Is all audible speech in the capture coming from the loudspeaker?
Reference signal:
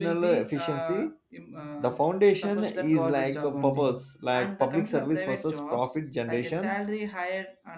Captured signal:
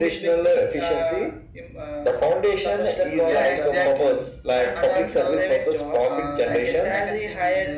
No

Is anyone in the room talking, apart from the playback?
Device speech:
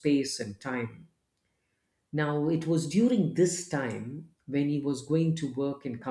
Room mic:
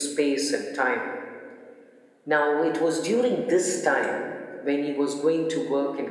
No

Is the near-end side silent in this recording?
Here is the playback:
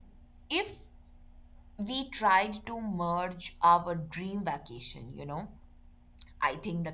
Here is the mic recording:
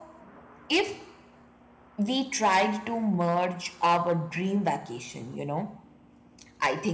Yes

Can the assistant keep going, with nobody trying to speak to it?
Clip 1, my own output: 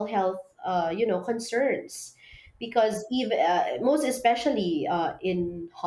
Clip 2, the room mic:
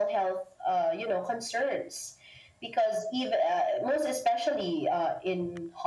Yes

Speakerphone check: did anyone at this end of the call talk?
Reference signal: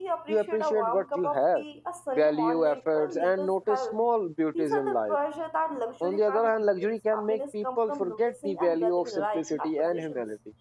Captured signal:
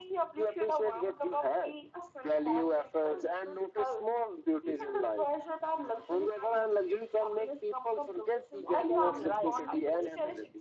Yes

